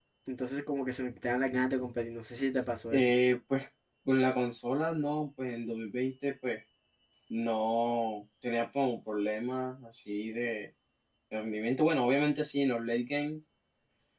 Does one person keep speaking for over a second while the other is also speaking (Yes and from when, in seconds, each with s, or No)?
No